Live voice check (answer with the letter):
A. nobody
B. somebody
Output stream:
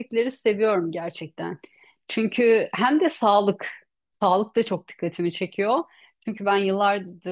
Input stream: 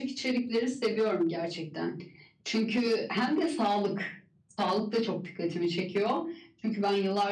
A